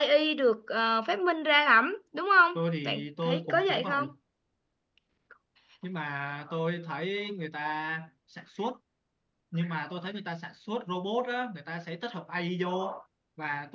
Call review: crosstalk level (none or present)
present